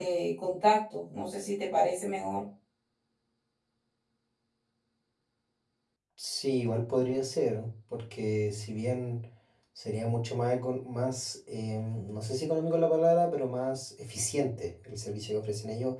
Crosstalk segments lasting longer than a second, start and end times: none

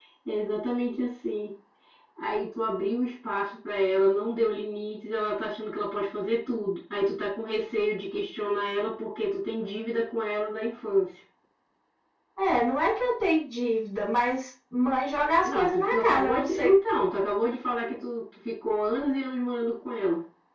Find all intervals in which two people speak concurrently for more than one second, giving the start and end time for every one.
15.4-16.7

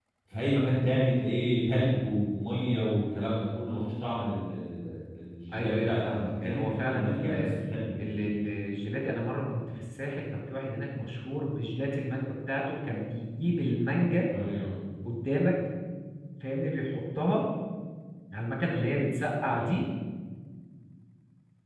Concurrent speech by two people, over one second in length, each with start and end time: 5.5-7.3

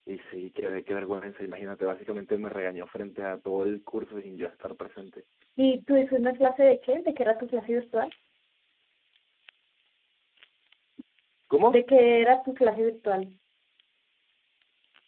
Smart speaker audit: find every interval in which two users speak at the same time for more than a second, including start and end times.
none

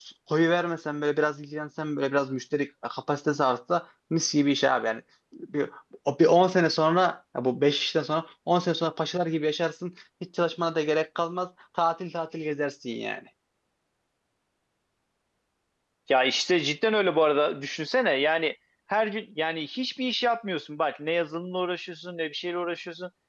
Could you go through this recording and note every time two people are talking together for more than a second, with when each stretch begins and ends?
none

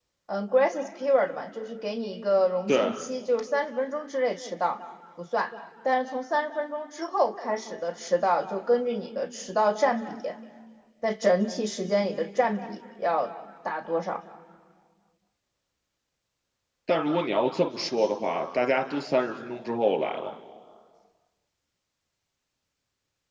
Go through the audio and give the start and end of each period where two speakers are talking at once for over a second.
none

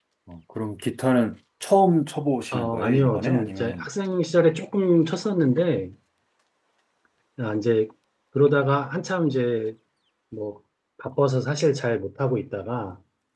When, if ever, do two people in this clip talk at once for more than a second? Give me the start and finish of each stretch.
2.5-3.9

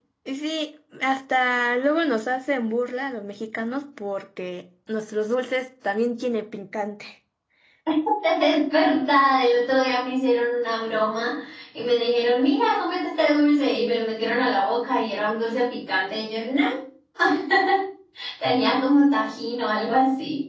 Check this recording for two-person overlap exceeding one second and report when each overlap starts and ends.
none

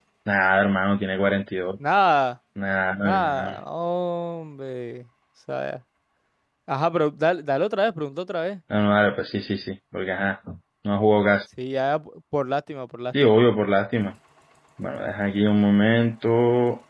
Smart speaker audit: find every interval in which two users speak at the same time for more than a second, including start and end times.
none

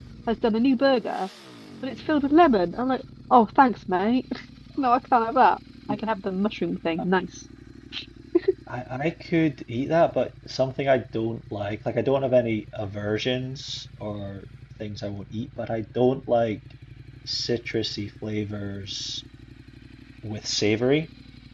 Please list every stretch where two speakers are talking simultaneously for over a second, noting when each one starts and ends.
none

